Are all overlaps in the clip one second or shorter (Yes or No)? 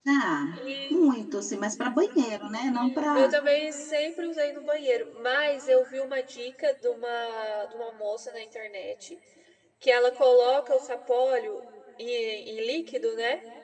Yes